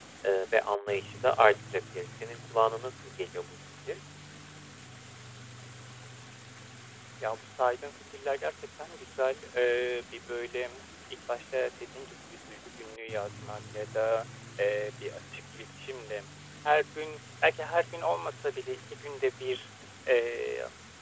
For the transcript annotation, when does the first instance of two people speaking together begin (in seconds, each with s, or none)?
none